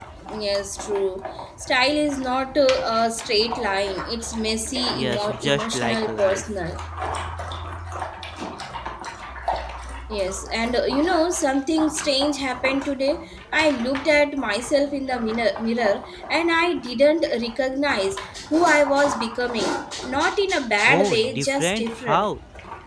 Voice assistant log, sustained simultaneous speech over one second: present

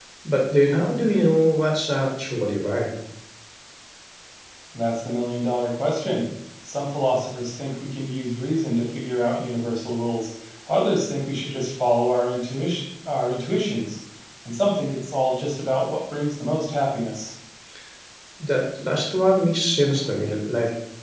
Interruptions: none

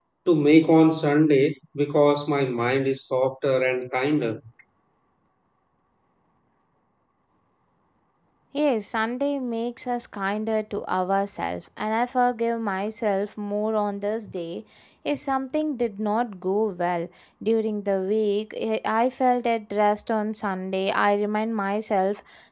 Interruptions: none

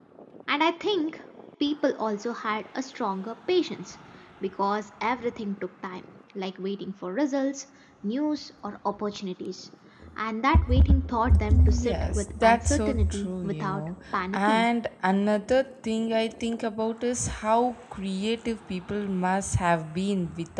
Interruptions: present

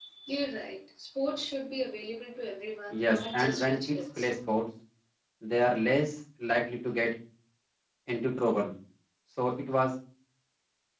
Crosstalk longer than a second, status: present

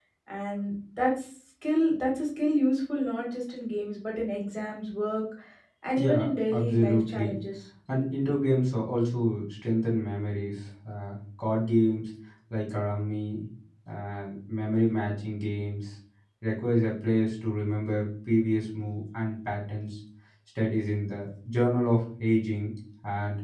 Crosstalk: present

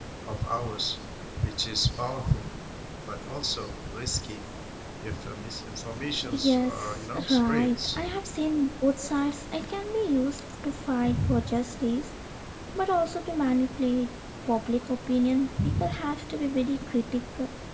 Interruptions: present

